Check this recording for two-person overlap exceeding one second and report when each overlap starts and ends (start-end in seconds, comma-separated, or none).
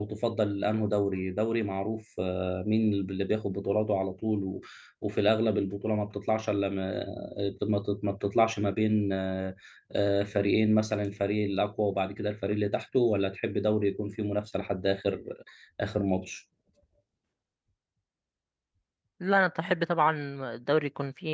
none